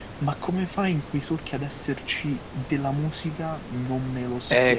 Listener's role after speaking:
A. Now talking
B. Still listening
A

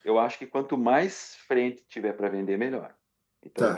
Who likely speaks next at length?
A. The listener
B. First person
A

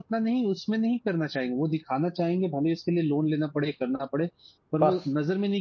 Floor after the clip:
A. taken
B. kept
B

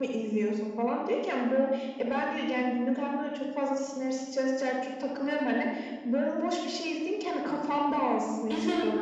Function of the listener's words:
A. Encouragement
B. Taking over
A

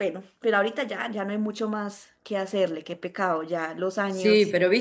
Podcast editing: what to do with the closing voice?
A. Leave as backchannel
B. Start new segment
B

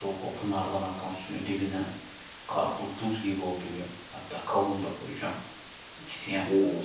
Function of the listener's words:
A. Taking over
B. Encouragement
B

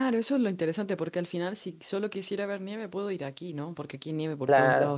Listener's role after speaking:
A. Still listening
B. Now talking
A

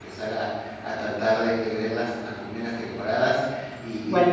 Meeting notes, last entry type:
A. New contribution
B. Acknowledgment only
B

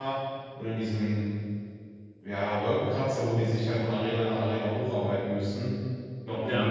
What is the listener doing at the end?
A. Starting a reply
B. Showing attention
B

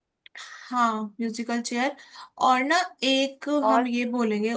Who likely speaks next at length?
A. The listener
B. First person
B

